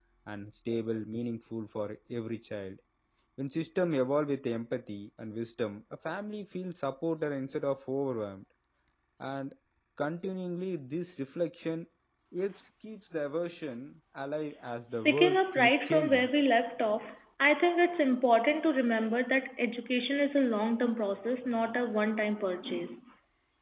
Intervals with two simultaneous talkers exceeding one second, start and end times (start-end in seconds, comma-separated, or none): 15.1-16.3